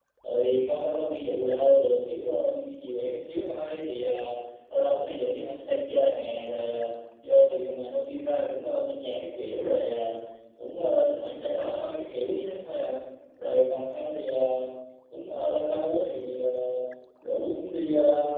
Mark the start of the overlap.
none

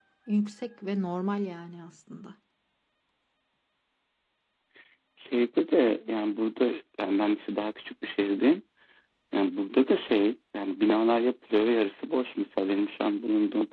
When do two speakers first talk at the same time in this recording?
none

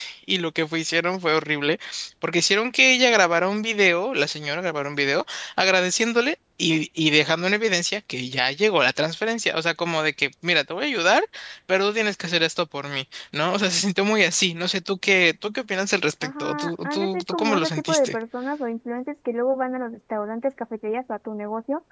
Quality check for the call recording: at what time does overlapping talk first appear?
16.2 s

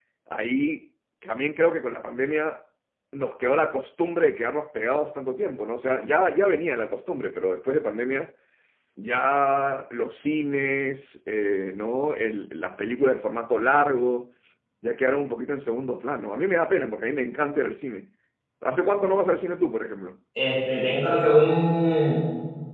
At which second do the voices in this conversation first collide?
none

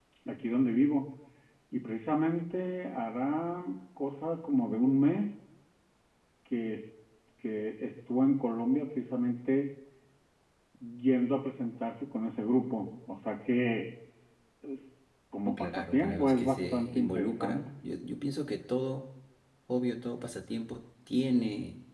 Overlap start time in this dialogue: 15.4 s

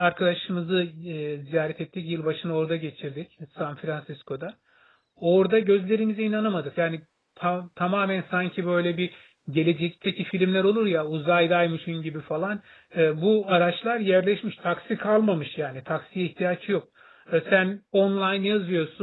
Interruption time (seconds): none

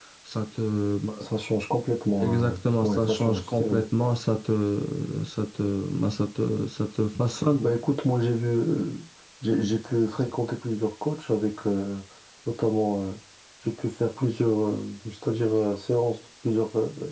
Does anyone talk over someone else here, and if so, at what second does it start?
2.2 s

